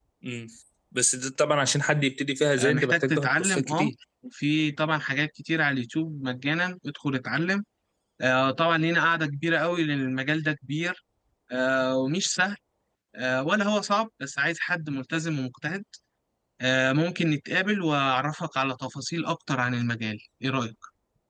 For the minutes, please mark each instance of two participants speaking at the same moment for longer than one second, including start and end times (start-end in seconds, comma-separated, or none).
2.6-3.9